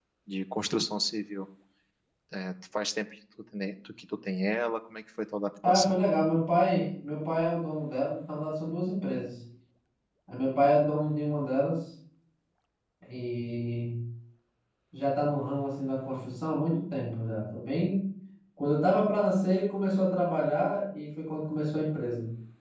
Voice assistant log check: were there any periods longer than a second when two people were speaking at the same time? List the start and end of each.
none

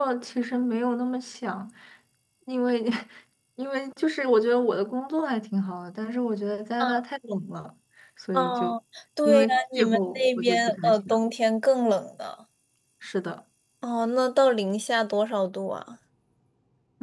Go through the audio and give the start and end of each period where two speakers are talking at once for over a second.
9.2-11.2

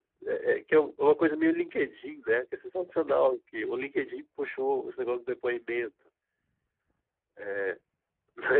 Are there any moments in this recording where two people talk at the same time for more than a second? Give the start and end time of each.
none

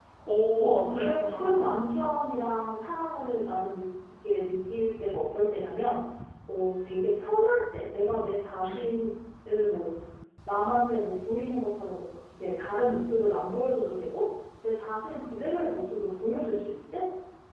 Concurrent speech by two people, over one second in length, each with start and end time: 0.6-1.8

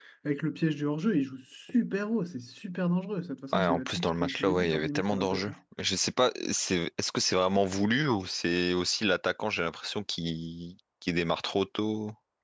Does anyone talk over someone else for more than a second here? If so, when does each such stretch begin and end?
3.5-5.5

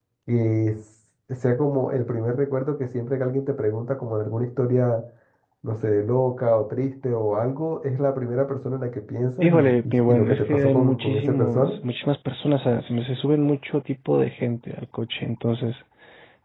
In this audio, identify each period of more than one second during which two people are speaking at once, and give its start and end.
9.4-11.8

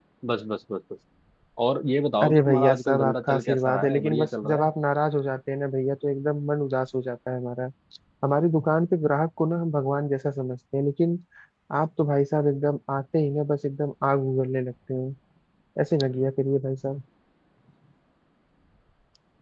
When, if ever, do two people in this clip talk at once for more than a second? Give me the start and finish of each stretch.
2.2-4.7

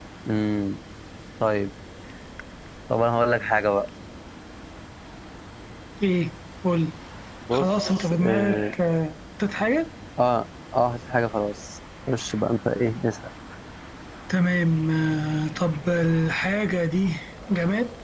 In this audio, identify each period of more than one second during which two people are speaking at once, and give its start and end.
7.5-8.7

